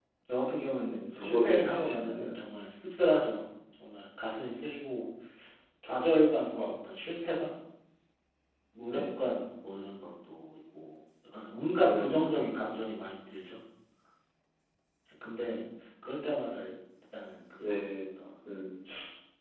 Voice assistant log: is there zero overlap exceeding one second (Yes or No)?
No